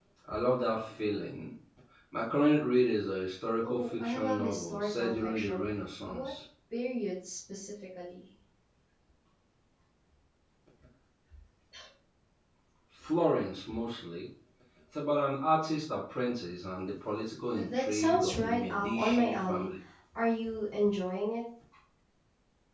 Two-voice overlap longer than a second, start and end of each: 3.6-5.6, 17.5-19.7

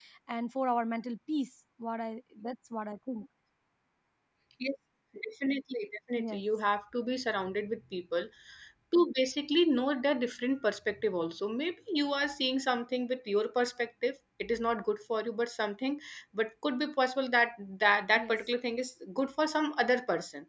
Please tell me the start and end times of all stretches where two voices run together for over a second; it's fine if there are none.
none

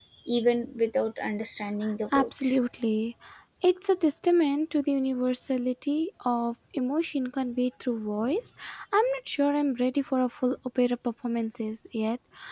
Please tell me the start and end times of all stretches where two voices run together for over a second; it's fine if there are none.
none

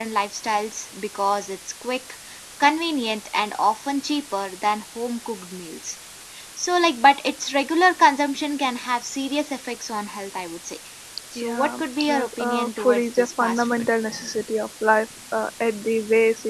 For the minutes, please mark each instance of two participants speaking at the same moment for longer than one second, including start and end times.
11.4-13.8

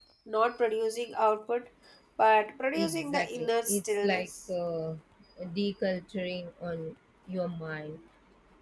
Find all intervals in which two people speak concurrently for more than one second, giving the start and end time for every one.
2.8-4.3

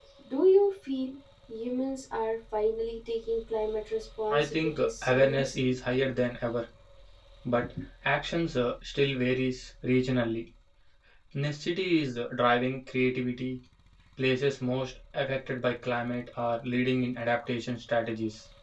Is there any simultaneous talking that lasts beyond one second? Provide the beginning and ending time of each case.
4.3-5.8

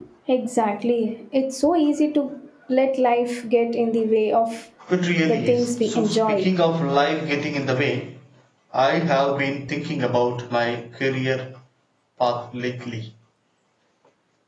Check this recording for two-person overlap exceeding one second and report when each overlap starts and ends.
5.3-6.5

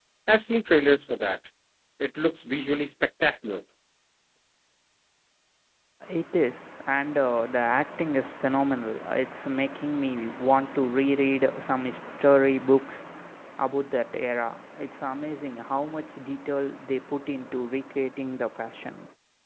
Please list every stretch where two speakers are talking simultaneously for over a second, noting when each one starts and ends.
none

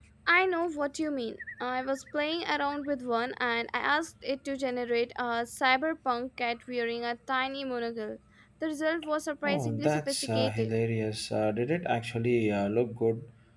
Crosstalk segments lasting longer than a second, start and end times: 9.4-10.7

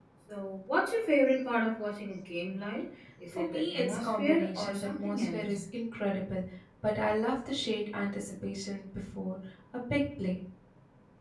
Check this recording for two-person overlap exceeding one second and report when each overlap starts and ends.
3.3-5.6

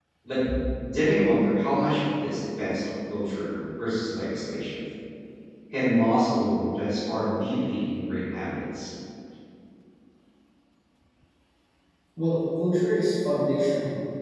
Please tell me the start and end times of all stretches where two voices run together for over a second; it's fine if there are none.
none

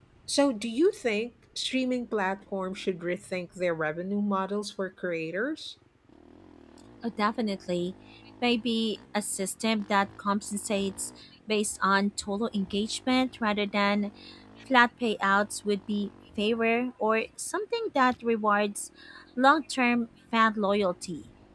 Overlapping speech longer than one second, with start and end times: none

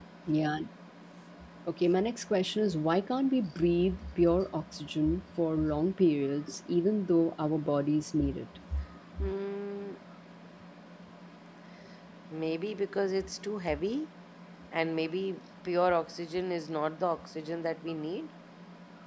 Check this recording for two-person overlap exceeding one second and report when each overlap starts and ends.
none

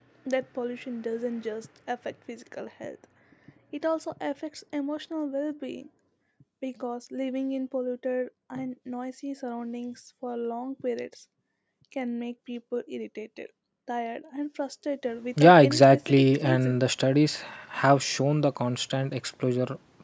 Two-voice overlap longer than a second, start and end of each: 15.4-16.8

